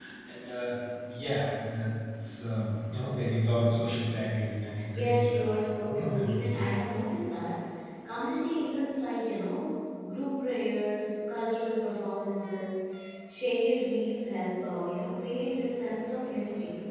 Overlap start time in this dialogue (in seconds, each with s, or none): 4.9 s